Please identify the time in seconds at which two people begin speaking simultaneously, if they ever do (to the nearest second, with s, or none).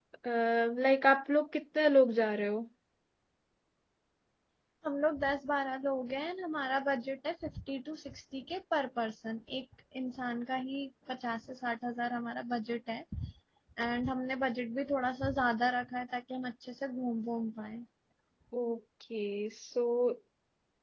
none